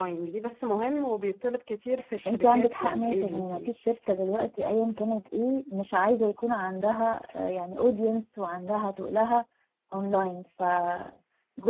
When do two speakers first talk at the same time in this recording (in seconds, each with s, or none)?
2.2 s